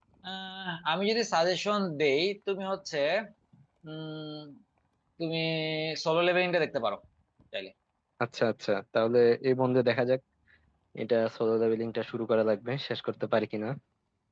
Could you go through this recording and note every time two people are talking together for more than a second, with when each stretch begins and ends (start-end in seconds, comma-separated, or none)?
none